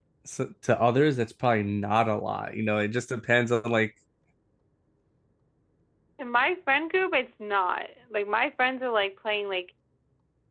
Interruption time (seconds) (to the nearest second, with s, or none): none